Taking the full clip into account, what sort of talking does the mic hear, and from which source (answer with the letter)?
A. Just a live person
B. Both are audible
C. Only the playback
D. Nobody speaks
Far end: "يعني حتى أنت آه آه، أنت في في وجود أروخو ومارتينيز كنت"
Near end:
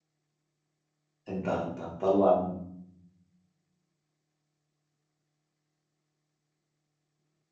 A